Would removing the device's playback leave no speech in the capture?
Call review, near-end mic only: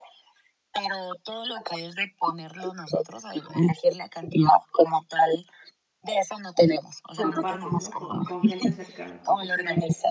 No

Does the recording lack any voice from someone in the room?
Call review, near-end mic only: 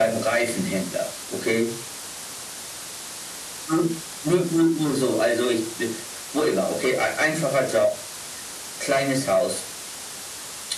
Yes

